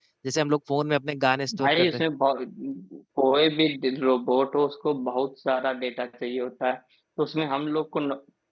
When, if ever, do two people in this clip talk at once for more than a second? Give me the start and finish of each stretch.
none

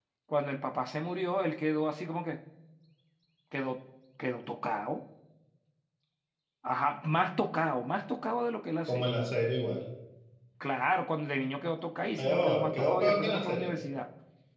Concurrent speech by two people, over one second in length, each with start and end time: 12.2-13.8

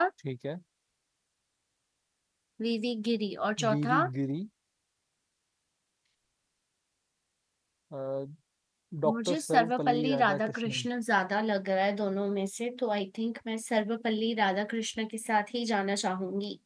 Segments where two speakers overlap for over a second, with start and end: 9.1-10.8

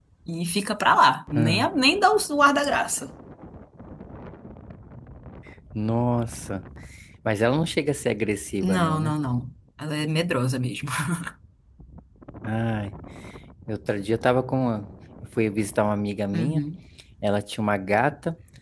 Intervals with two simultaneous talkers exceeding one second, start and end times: none

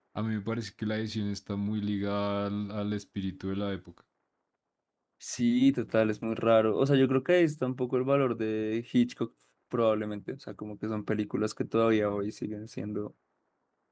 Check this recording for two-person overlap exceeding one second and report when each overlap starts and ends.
none

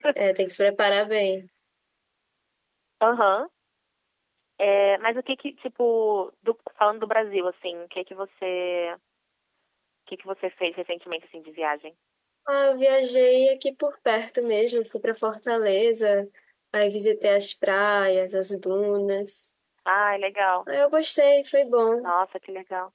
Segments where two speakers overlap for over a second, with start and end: none

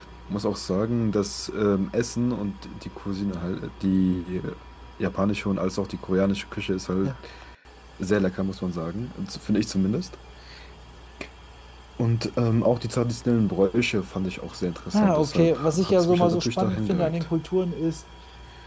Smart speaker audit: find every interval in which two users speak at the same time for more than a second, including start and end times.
14.9-17.3

